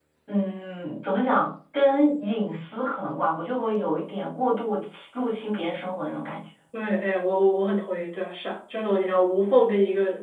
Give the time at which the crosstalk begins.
none

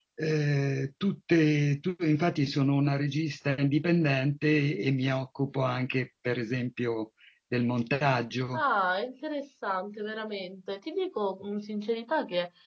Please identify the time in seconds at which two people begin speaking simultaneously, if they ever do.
none

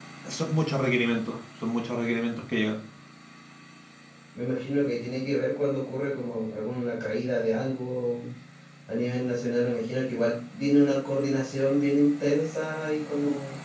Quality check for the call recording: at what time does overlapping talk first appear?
none

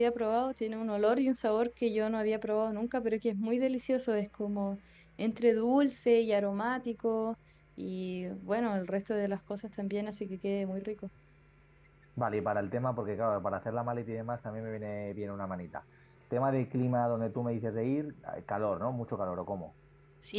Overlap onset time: none

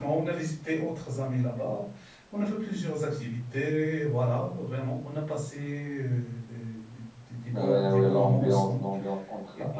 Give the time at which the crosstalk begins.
8 s

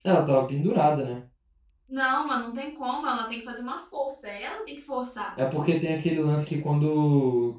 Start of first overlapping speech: none

